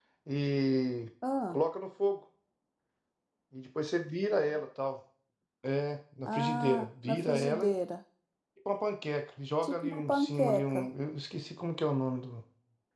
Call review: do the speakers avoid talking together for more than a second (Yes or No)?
No